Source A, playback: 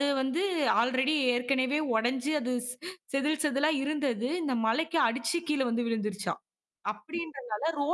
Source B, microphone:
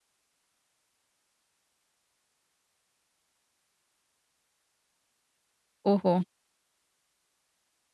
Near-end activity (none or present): present